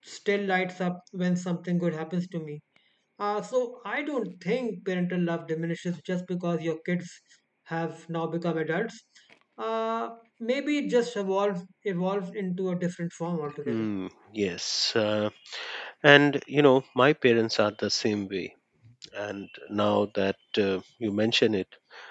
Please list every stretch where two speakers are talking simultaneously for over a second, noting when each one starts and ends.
none

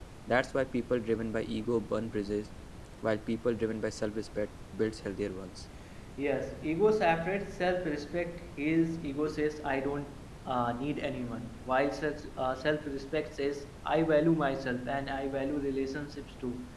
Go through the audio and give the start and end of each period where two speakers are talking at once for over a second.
none

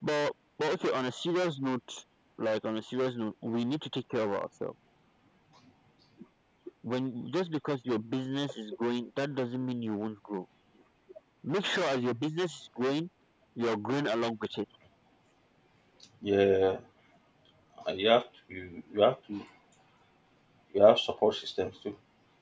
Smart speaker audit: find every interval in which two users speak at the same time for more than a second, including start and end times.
none

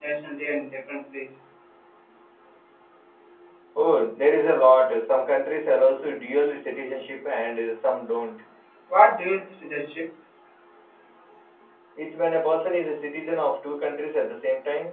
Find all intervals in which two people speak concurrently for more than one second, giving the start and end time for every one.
none

